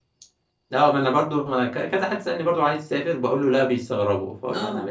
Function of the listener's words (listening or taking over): listening